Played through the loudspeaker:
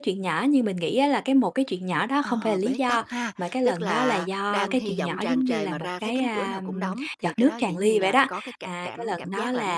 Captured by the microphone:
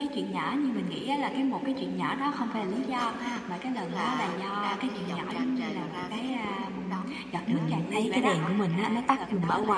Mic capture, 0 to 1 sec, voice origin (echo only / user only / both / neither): echo only